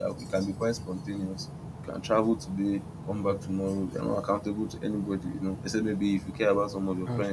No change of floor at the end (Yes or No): Yes